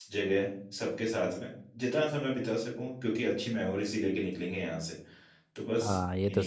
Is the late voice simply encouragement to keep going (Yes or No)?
No